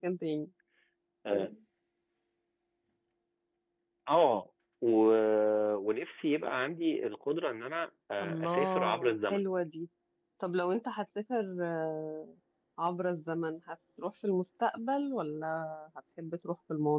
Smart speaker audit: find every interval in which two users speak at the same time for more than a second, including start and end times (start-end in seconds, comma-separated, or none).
8.2-9.4